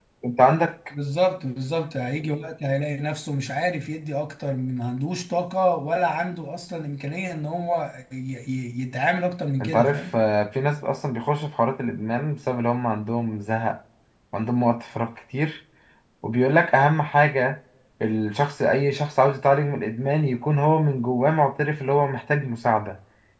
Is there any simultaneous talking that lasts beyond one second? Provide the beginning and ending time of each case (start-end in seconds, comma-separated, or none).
none